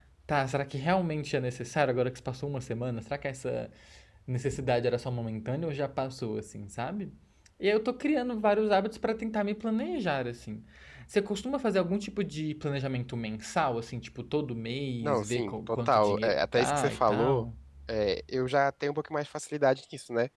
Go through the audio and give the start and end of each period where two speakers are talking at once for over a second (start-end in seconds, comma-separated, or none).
15.0-17.5